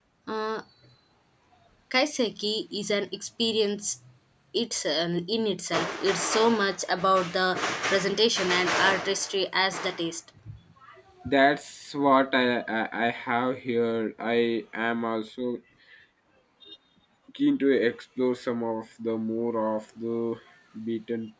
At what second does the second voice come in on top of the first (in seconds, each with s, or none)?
none